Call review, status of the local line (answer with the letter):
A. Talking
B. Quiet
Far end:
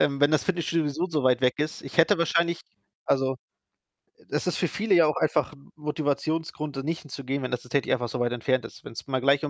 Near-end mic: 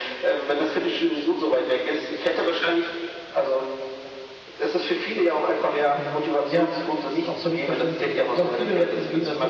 A